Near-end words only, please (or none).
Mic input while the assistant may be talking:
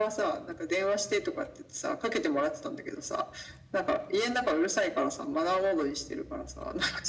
none